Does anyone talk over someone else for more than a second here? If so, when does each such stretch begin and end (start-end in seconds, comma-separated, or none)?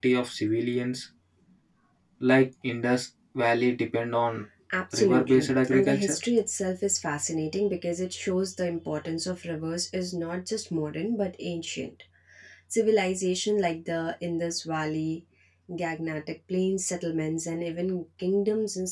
5.0-6.2